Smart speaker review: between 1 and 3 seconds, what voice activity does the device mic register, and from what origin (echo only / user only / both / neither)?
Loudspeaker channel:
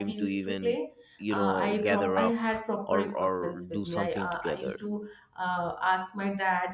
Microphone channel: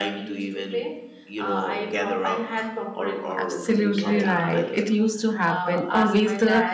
echo only